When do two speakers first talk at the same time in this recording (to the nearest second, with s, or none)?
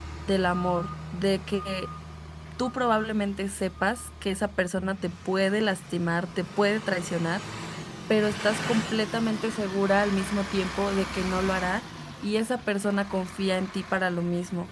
none